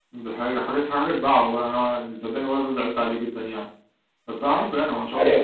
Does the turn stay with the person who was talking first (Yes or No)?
Yes